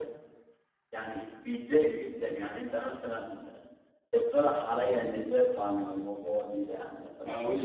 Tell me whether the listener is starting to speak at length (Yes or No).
Yes